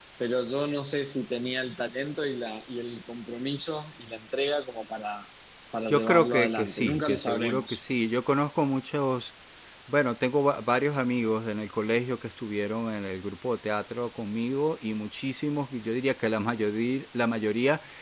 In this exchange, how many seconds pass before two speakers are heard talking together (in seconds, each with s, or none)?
5.9 s